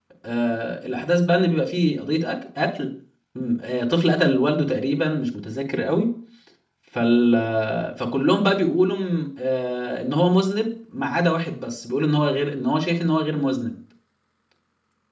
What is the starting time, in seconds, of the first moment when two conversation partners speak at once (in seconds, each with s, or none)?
none